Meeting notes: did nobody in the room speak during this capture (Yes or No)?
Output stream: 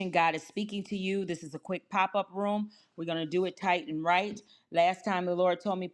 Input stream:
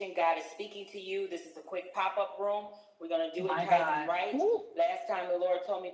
No